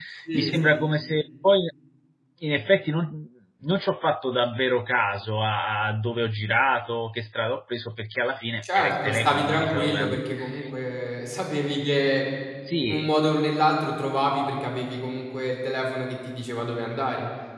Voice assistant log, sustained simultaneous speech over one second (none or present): present